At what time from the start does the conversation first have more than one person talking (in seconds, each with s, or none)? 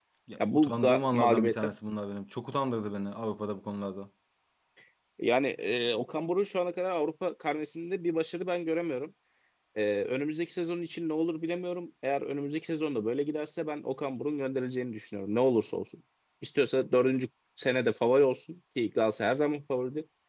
0.5 s